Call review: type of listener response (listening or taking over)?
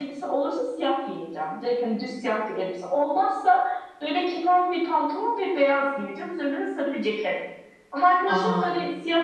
listening